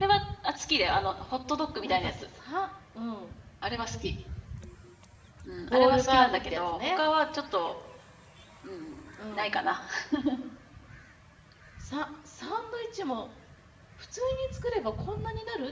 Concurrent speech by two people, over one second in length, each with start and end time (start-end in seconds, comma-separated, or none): 5.7-7.0